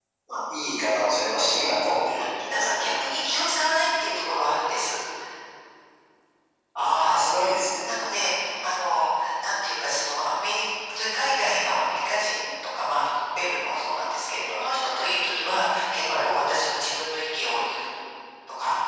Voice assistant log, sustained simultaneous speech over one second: none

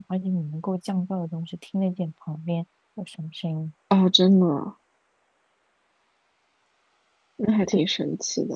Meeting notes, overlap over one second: none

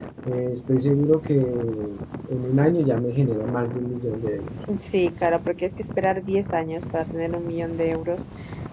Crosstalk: none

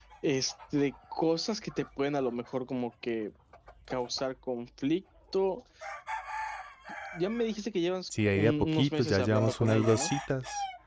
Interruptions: present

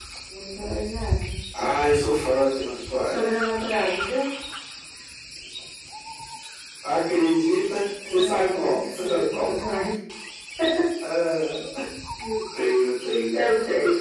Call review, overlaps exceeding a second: present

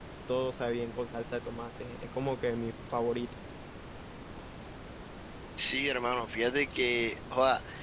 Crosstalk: none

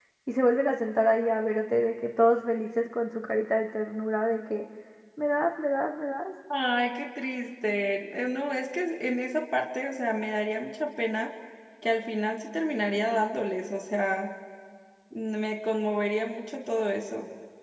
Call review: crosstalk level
none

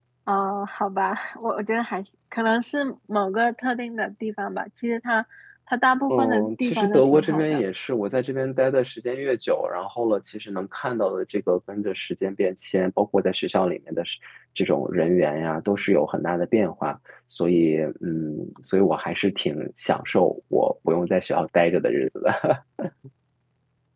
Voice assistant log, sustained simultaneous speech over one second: present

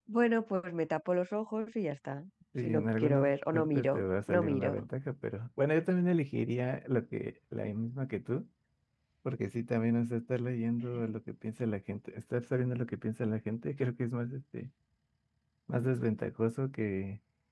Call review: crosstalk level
present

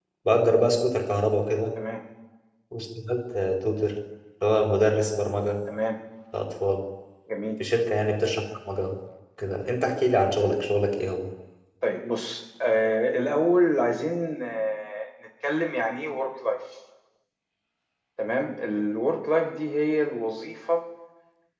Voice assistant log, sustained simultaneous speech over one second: none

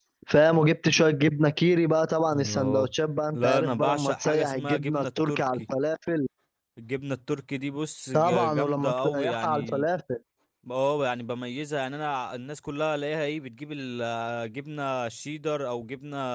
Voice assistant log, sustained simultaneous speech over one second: present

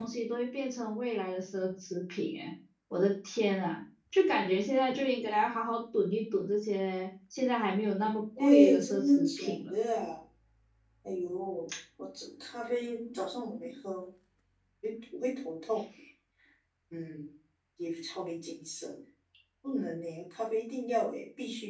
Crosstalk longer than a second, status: present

